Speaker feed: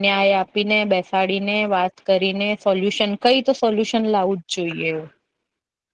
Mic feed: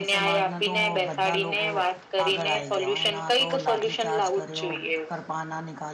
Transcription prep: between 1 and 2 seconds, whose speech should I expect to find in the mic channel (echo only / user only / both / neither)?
both